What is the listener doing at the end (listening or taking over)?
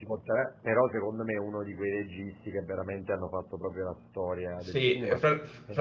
taking over